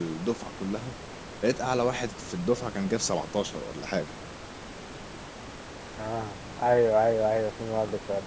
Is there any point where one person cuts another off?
No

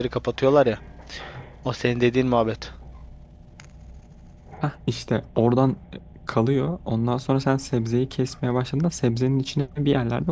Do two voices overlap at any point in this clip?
No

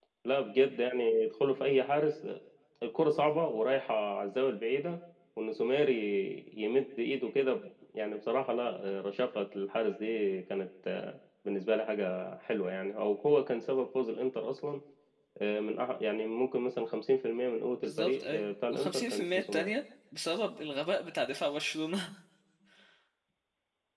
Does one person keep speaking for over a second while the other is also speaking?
Yes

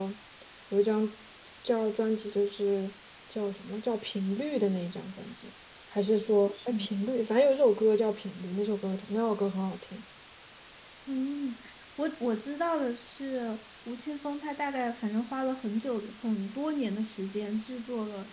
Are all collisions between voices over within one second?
Yes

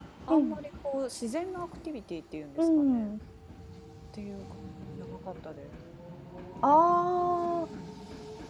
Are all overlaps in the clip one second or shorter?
Yes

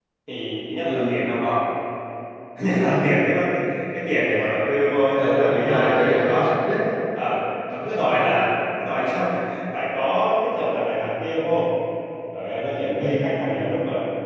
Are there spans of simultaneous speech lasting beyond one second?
Yes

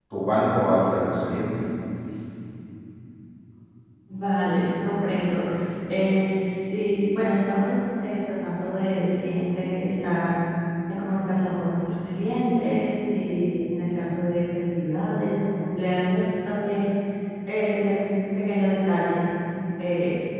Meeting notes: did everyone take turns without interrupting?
Yes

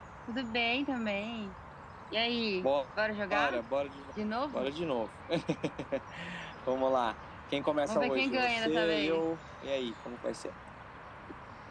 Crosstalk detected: Yes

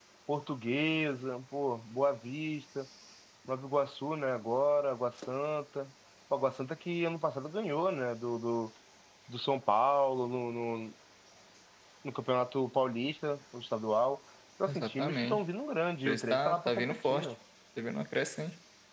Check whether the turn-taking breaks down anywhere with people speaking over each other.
Yes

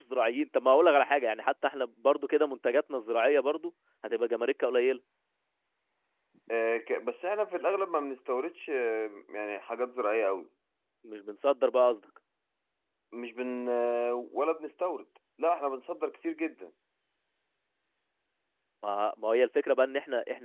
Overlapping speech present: No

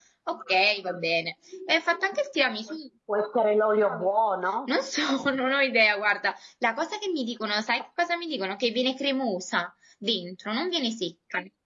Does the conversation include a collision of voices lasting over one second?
No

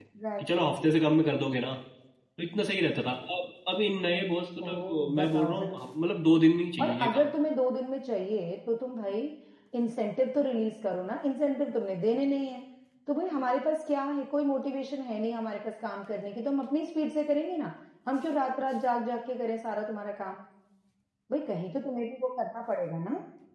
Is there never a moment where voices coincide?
No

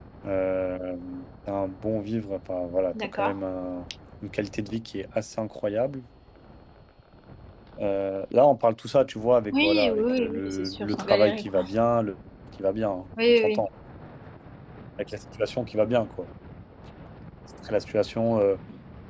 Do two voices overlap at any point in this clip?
Yes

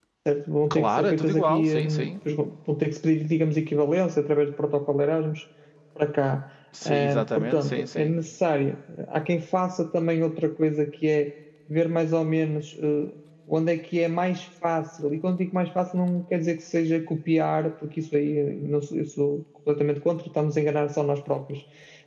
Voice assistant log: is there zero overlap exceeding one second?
No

